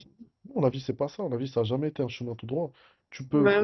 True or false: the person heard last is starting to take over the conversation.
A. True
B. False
B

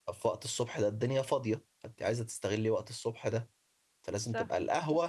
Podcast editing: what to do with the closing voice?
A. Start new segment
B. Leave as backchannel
B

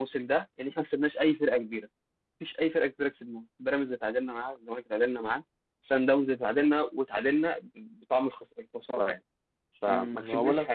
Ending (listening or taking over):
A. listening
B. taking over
B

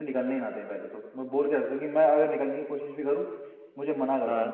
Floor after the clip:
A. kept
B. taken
A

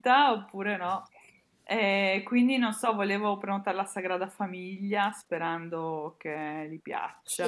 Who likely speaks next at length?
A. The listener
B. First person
A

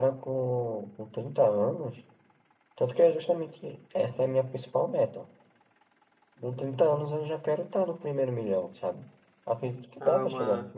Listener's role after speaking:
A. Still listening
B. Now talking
B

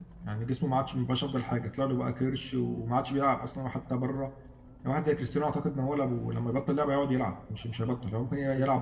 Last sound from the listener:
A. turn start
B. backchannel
B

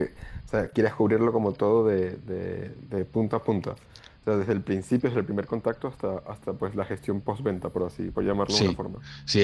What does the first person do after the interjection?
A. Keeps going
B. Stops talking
B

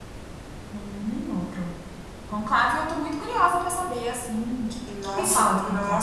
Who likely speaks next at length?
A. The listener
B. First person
A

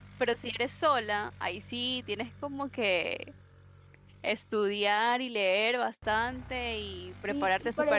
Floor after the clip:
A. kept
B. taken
B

